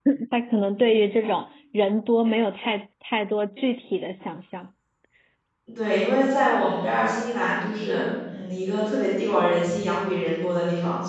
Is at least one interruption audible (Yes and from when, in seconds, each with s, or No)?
No